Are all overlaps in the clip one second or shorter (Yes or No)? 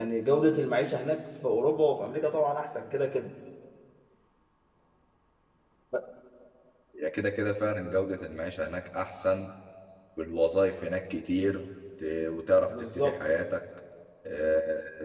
Yes